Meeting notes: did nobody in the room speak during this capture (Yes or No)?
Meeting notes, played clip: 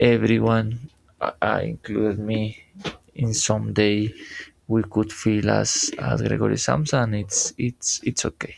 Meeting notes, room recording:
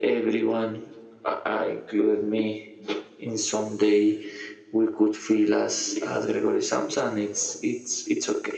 Yes